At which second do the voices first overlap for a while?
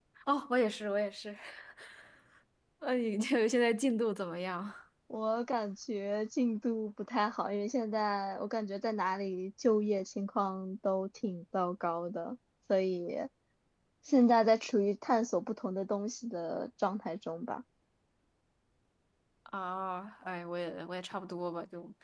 none

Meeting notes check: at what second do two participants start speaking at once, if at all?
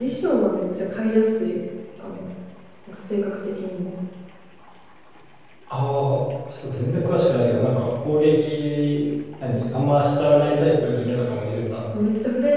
none

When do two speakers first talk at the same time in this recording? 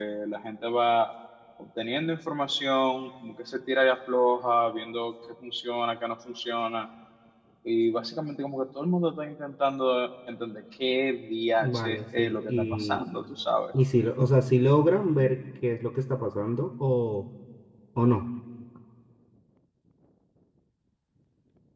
11.6 s

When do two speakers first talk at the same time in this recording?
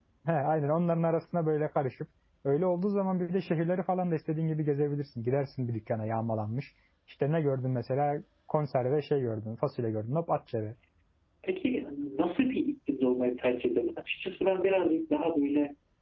none

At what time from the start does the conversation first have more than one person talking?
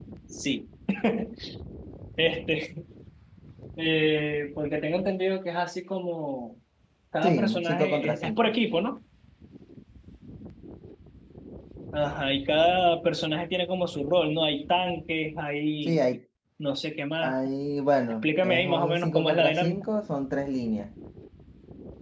7.2 s

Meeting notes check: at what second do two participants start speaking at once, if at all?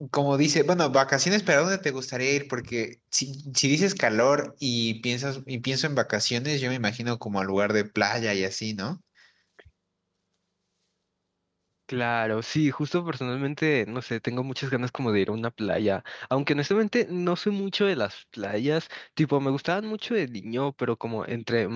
none

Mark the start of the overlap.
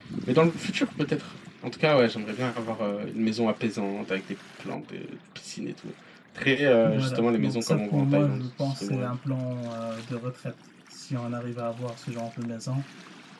6.8 s

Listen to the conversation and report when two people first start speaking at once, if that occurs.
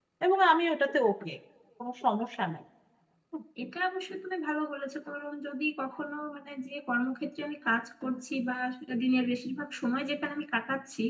none

